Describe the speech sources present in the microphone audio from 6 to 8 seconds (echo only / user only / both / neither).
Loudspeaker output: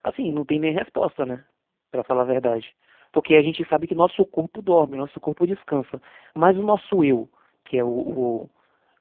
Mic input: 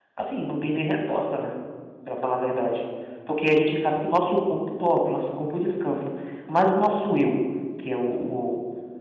echo only